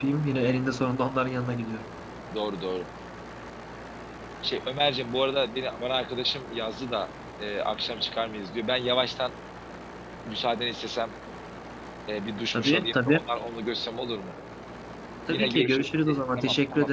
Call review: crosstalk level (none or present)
present